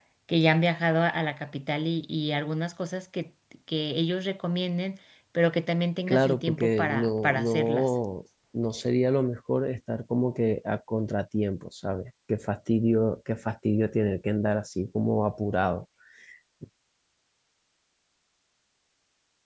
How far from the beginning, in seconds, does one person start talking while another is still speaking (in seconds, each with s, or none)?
6.1 s